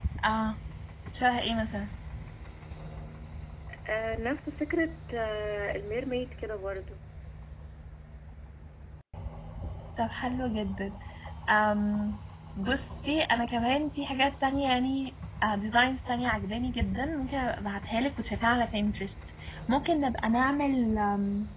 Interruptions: none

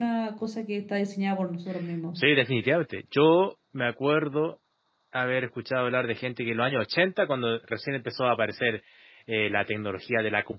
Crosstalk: none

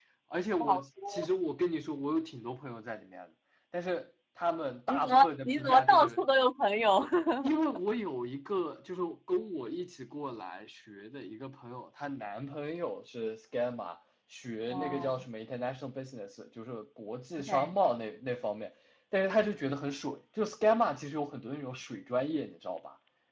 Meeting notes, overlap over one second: present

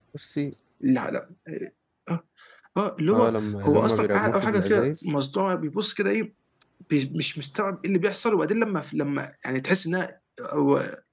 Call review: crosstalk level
present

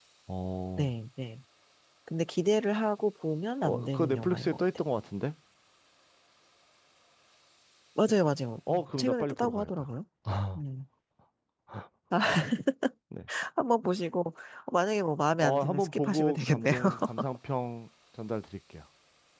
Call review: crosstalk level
present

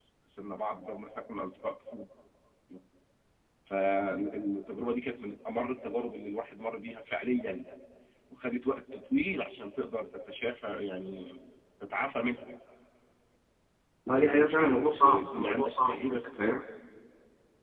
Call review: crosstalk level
present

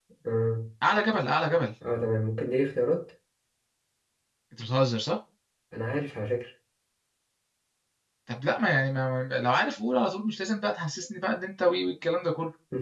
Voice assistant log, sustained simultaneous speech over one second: none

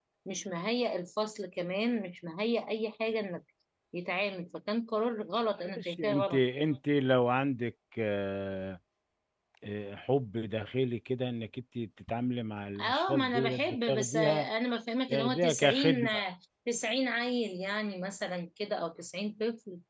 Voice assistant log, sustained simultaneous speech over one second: present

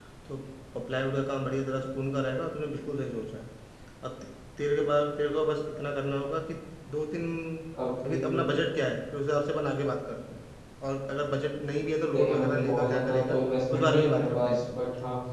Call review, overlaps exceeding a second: present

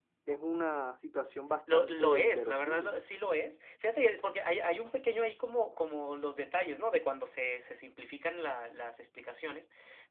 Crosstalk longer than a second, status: present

